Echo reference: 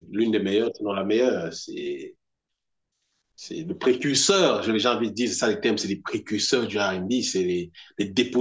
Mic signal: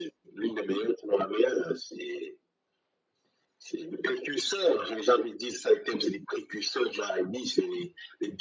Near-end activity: none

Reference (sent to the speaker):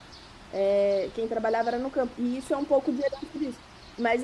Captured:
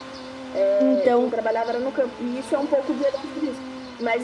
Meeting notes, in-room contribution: present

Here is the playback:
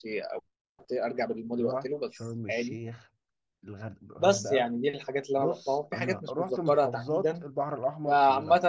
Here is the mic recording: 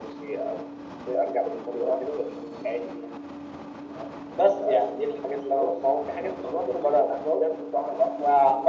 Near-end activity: none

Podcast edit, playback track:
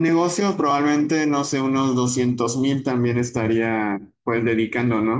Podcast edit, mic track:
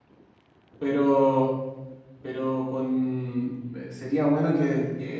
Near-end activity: present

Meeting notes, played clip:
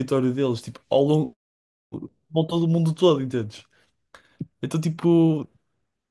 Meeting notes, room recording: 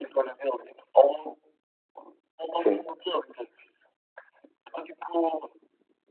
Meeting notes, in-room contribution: present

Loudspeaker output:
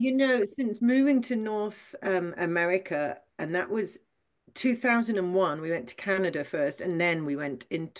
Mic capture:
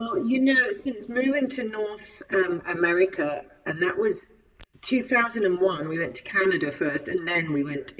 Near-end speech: none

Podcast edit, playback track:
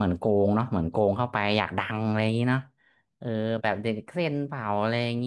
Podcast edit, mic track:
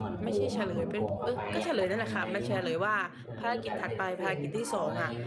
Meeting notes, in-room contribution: present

